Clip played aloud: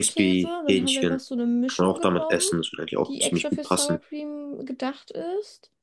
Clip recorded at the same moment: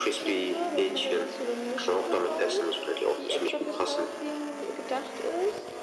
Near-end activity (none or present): none